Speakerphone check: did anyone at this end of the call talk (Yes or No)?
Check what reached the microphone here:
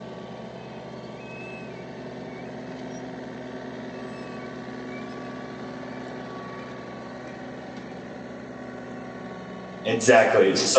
Yes